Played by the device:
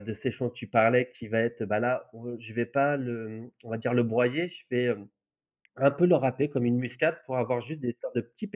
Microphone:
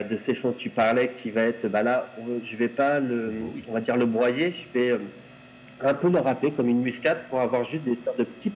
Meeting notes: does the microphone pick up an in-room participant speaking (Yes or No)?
Yes